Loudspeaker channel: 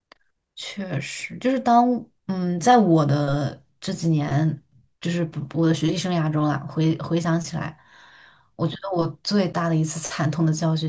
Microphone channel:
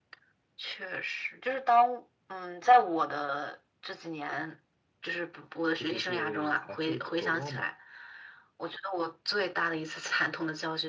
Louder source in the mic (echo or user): echo